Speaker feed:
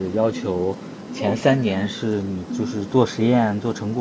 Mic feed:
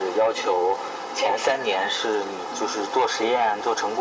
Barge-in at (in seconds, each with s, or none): none